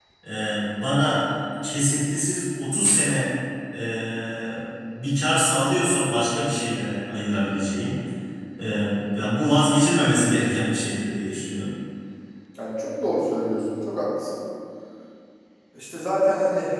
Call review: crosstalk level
none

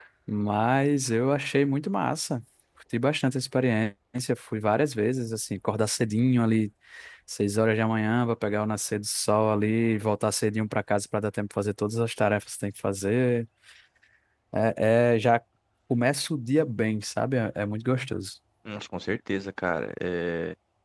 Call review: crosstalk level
none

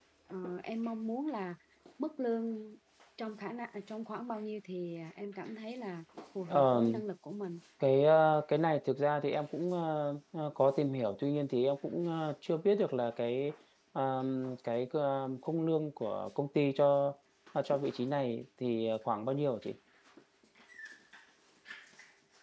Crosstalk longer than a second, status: none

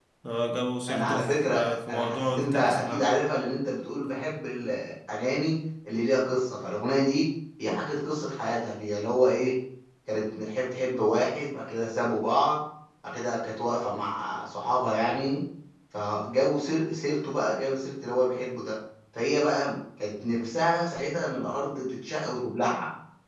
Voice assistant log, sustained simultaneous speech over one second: present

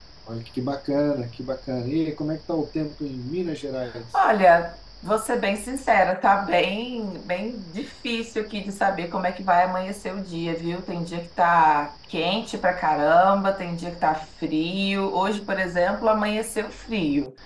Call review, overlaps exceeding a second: none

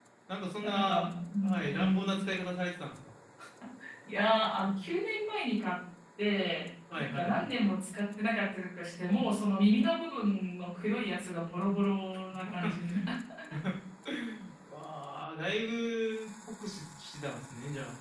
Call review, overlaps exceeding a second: present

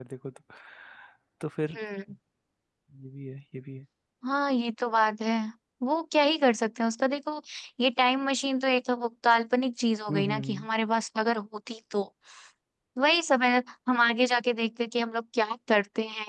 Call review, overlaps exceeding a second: none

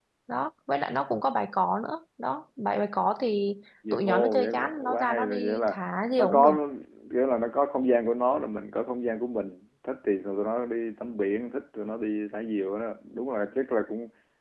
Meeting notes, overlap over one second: present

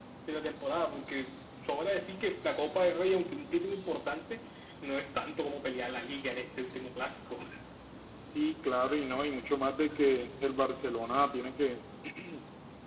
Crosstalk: none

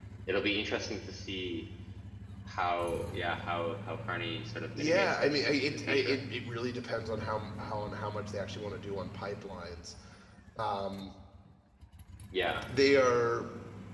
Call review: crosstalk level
present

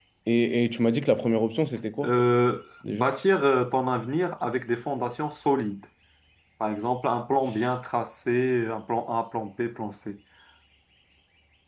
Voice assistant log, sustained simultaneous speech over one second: none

